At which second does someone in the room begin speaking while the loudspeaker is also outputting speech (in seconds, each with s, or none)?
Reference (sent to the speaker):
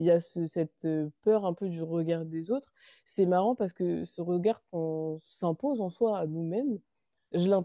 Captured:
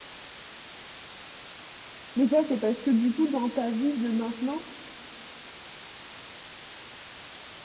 2.2 s